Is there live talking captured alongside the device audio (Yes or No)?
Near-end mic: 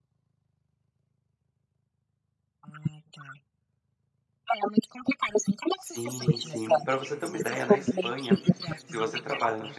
Yes